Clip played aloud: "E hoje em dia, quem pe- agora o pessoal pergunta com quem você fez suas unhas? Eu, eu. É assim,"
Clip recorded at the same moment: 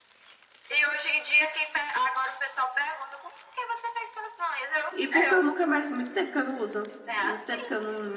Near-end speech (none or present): present